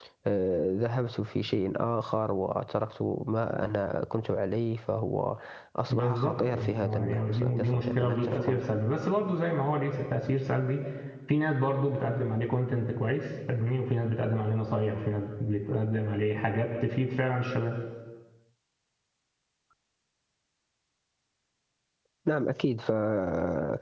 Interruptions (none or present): present